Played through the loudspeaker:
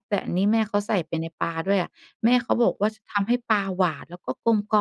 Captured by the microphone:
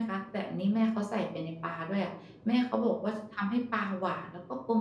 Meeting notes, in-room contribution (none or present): none